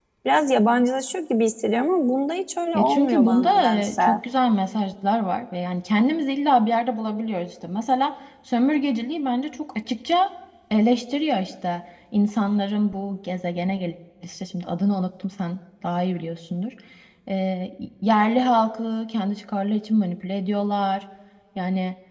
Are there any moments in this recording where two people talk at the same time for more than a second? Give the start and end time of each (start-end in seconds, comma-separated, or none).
2.7-4.0